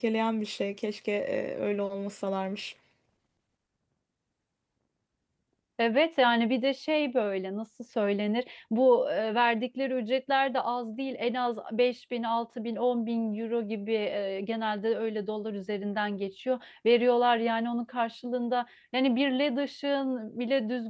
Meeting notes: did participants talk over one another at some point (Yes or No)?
No